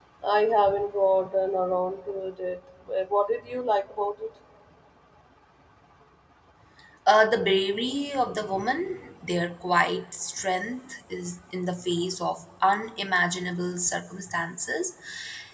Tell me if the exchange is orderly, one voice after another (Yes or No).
Yes